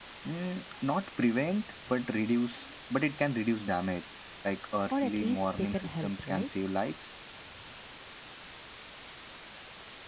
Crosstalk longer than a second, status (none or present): present